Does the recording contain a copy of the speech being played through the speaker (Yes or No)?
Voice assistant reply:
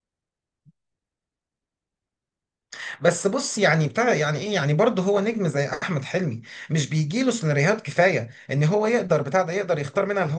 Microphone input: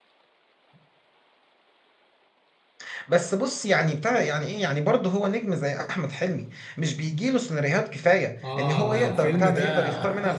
Yes